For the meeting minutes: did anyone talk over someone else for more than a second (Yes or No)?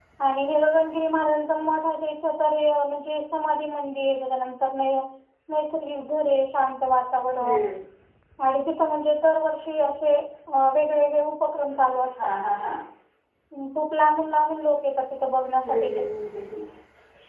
No